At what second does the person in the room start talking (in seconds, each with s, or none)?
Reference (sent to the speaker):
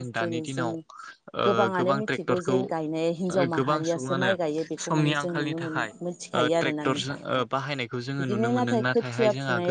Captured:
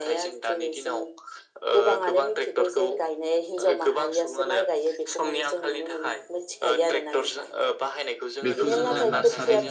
8.4 s